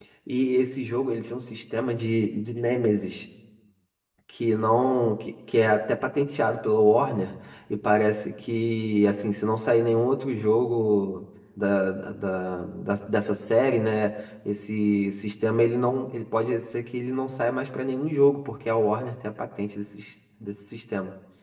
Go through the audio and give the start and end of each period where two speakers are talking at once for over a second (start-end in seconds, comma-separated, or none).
none